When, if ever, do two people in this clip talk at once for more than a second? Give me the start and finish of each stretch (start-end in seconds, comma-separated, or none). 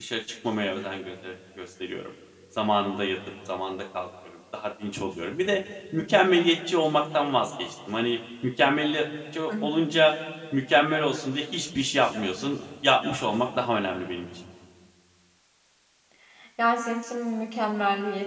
none